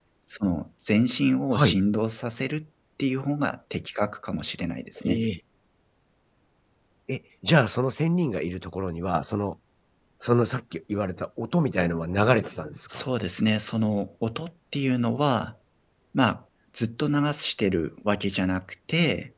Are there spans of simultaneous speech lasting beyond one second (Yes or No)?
No